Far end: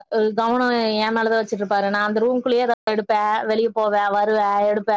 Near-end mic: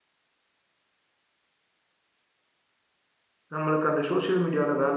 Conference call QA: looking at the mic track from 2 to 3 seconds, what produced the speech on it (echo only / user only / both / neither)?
neither